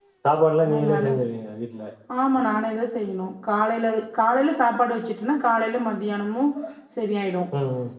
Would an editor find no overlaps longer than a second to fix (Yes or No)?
Yes